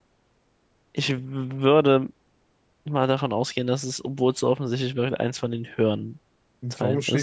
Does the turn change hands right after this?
Yes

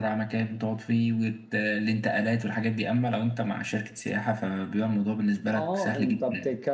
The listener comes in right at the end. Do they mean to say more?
Yes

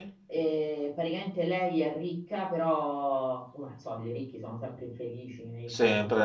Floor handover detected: No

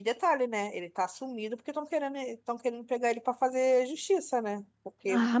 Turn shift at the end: Yes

